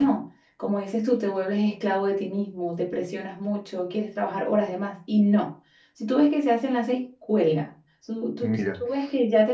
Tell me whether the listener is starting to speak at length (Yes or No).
No